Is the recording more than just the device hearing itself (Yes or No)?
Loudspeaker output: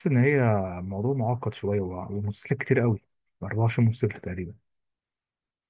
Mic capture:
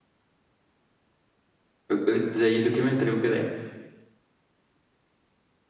Yes